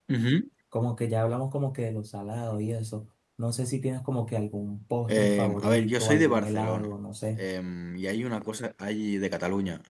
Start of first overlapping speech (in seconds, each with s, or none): 5.1 s